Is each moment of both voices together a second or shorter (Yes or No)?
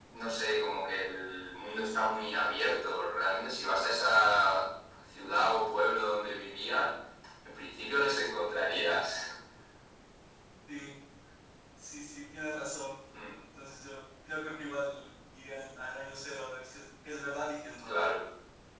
Yes